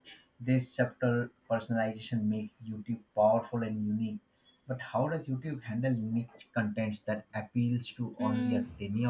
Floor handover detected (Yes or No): Yes